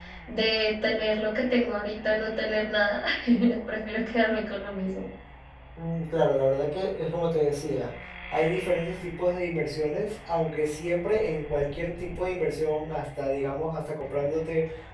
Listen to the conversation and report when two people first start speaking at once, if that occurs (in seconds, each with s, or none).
none